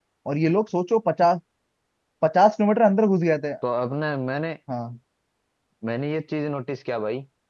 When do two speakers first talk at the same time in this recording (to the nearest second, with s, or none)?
none